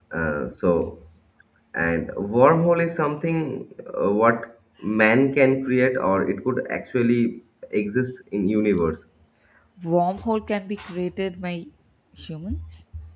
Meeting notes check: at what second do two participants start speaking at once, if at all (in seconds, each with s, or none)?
none